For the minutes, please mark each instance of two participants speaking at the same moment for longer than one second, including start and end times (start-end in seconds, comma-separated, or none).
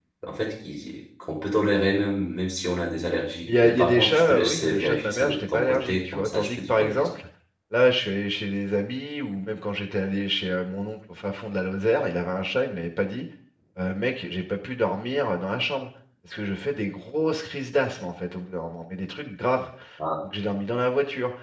3.5-7.1